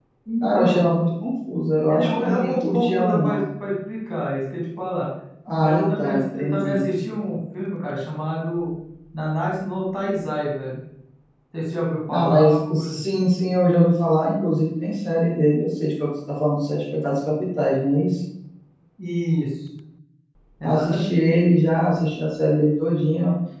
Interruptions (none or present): present